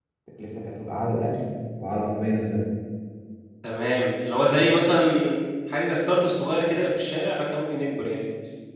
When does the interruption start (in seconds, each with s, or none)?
none